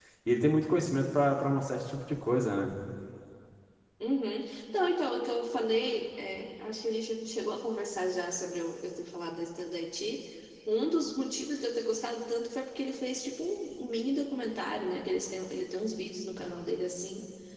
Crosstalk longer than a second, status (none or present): none